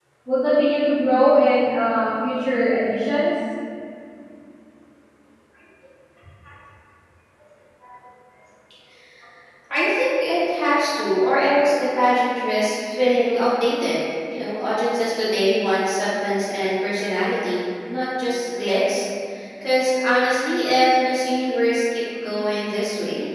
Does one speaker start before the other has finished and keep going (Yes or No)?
No